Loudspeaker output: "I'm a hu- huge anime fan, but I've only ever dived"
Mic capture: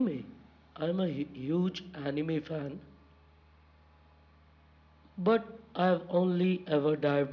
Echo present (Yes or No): Yes